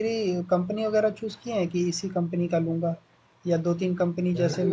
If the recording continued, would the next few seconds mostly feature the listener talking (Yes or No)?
Yes